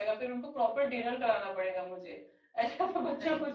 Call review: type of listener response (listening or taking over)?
listening